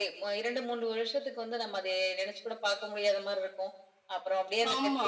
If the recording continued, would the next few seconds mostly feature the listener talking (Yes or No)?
No